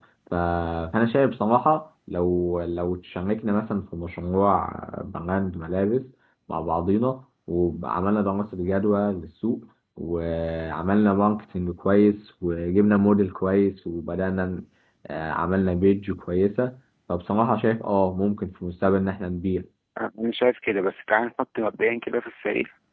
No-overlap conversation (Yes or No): Yes